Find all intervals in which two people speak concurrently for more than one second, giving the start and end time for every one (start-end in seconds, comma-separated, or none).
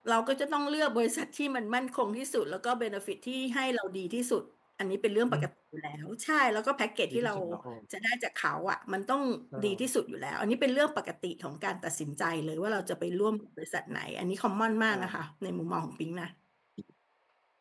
none